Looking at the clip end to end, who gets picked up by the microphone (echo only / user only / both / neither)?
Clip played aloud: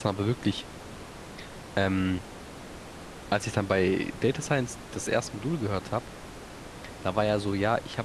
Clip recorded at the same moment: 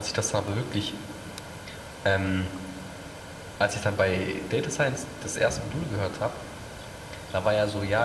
echo only